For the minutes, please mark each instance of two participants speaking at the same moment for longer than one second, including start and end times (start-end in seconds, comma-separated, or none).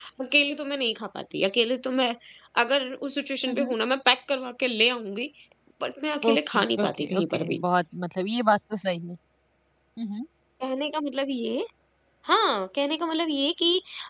6.3-7.6